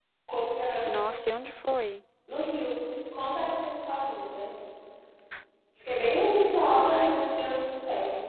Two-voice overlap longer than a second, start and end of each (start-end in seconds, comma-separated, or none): none